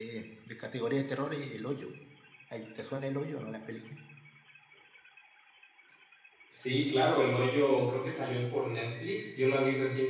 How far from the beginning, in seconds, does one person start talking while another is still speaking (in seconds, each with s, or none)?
none